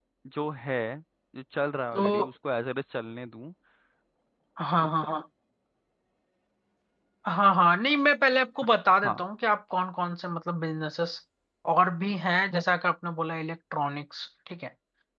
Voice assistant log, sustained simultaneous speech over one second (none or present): none